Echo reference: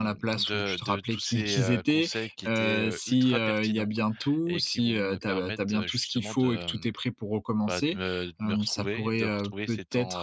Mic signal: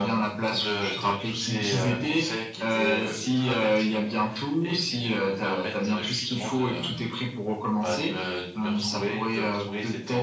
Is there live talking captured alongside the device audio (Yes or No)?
No